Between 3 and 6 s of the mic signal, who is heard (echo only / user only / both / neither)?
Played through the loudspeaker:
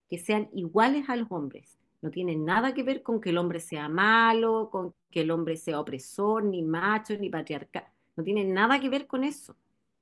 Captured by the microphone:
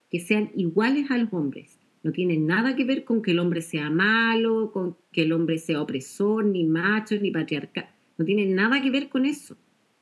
echo only